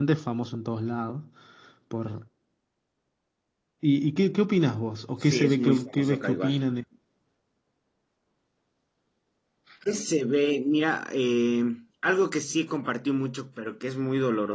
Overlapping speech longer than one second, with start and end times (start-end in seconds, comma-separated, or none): 5.2-6.5